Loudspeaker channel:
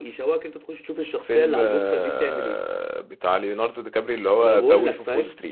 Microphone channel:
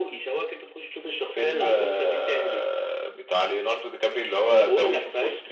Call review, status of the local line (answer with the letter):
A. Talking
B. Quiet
B